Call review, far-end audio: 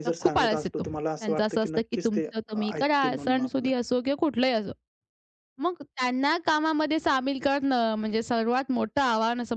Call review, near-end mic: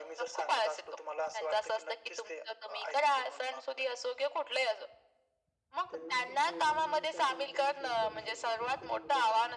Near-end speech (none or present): present